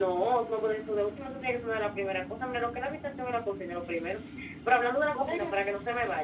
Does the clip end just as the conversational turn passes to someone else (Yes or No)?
No